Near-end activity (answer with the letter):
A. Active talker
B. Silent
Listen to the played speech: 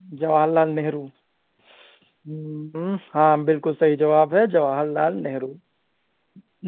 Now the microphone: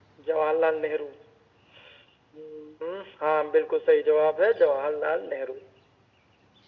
B